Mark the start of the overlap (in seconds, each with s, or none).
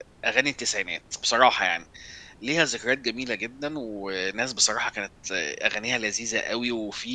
none